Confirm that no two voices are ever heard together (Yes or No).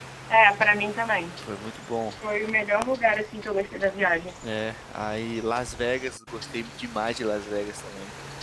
Yes